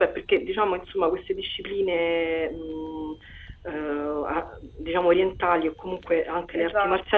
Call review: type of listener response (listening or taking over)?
listening